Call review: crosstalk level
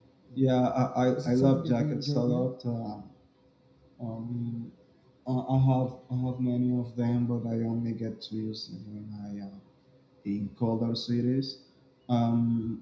present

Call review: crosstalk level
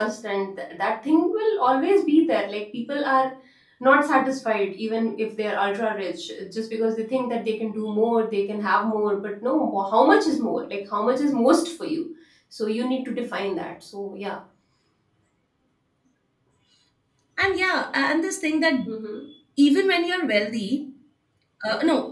none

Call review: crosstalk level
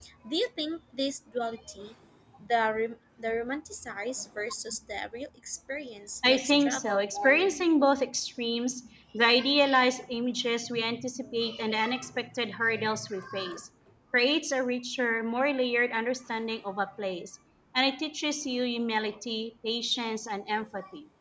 present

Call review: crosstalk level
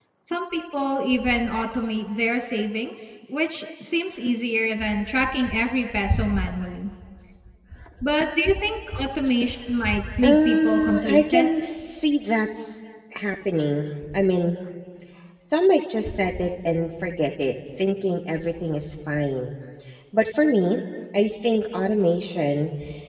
present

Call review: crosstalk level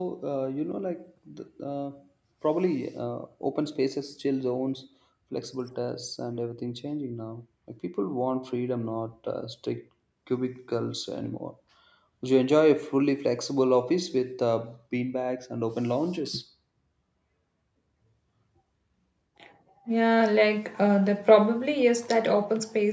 none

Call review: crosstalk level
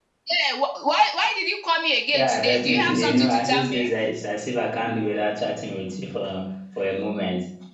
present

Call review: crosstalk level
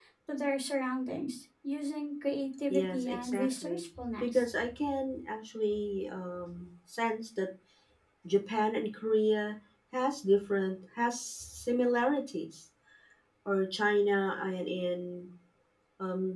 present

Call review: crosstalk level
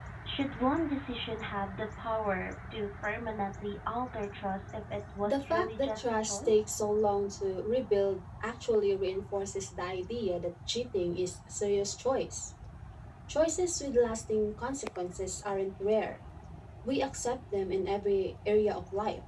present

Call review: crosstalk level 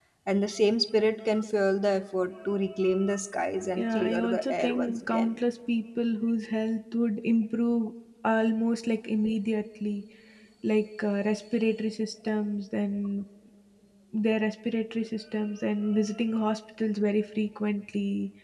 present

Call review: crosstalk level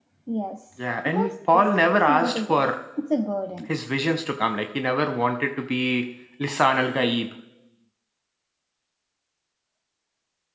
present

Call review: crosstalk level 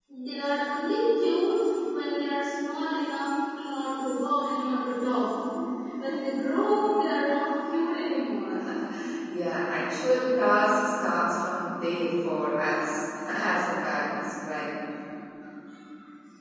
none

